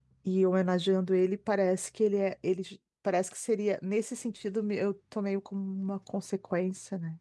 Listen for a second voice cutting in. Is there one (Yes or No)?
No